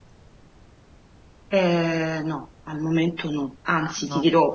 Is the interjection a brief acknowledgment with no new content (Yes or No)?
Yes